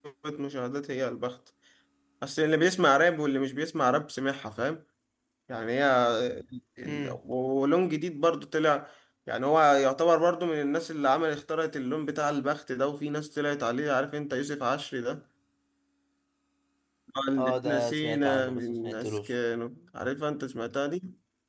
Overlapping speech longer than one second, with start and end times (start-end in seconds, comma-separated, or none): 17.4-19.3